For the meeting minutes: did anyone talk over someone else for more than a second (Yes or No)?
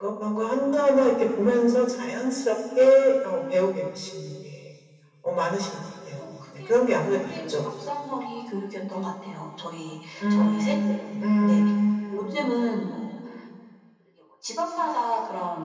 Yes